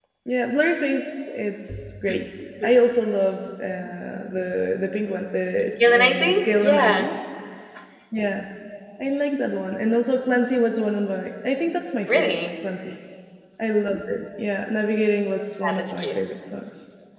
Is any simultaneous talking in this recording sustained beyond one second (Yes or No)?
Yes